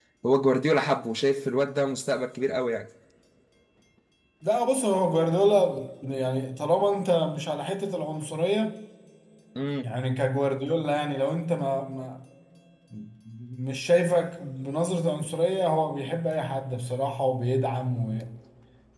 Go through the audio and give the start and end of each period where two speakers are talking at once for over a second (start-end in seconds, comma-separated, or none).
none